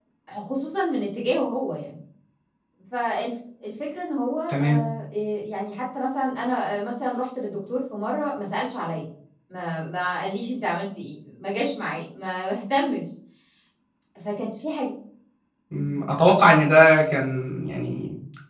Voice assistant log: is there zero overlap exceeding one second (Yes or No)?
Yes